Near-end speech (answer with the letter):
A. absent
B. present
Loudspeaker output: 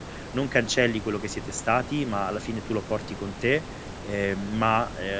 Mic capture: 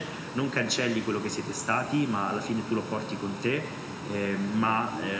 B